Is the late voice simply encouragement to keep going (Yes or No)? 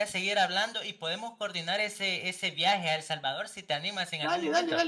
No